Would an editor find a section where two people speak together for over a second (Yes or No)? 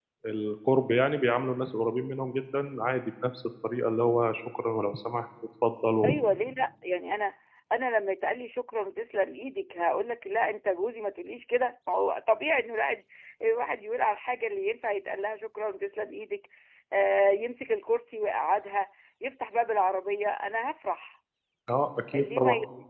No